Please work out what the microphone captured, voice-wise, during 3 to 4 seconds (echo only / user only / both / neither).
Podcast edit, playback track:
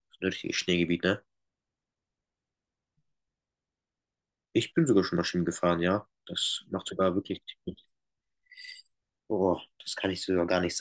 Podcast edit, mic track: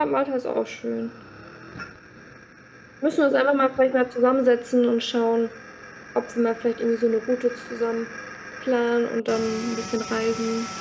user only